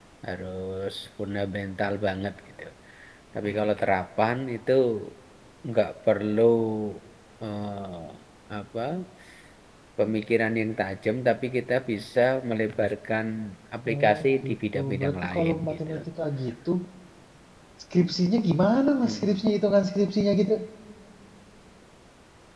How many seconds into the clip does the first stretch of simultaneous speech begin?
13.9 s

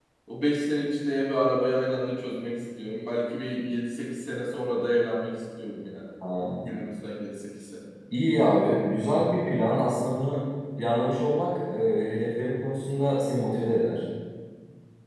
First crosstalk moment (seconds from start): none

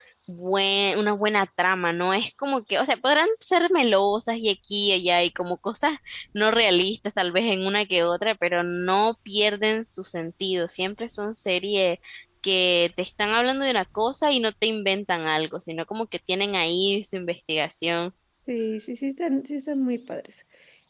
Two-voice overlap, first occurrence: none

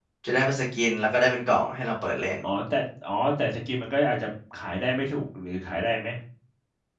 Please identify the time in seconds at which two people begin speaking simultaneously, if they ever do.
none

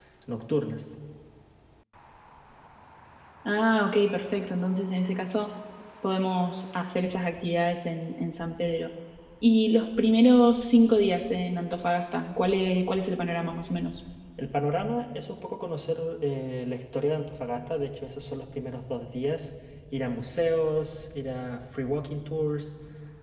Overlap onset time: none

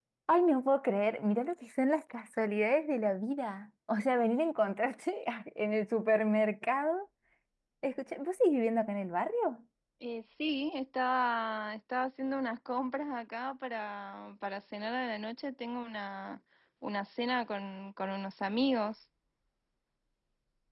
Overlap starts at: none

